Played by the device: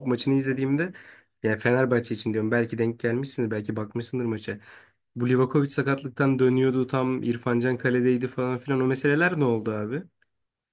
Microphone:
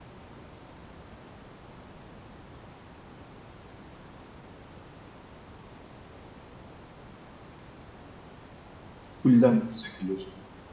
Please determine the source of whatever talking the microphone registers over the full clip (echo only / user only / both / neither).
user only